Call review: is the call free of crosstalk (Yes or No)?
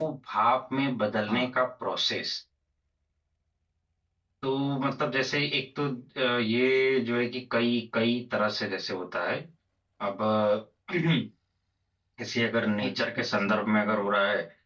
No